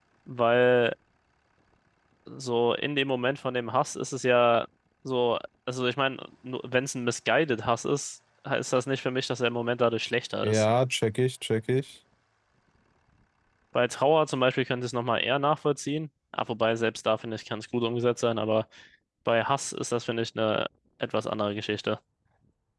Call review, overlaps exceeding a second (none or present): none